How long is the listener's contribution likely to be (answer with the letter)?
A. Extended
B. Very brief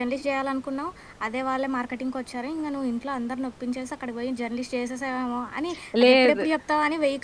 B